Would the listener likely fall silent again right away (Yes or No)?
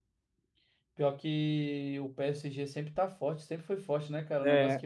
Yes